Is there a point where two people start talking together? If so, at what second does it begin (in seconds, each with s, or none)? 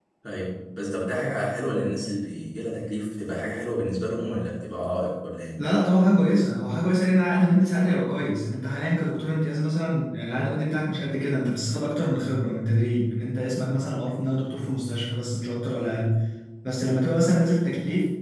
none